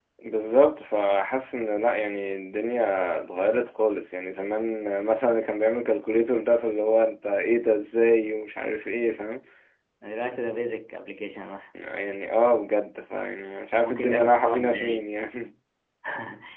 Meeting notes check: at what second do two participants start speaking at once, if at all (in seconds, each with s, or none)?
13.8 s